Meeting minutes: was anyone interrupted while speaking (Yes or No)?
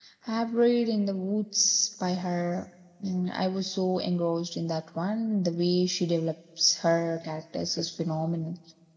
No